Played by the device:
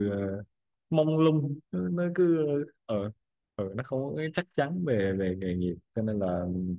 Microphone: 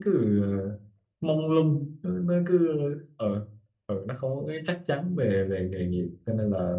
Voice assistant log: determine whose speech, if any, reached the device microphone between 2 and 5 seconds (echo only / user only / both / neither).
echo only